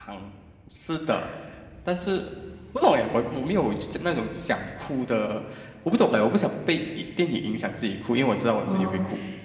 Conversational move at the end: taking over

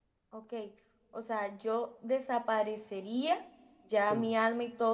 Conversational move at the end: listening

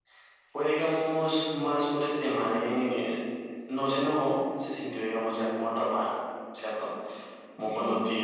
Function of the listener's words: listening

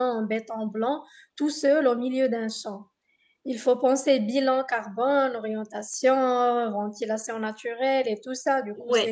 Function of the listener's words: listening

